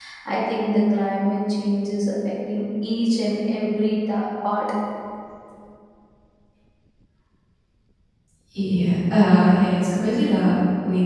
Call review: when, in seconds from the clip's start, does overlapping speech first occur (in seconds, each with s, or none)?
none